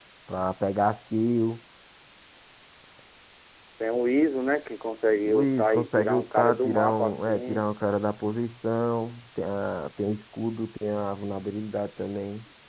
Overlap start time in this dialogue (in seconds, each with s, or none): 5.2 s